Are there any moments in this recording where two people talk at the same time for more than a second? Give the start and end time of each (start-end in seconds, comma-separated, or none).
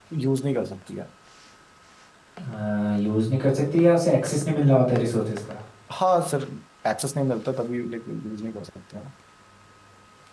none